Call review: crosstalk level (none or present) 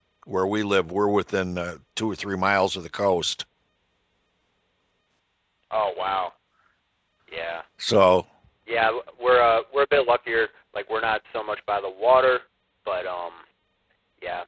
none